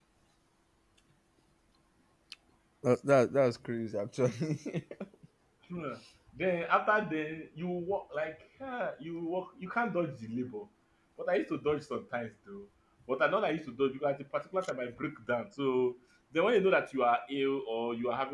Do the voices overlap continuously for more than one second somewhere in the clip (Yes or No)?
No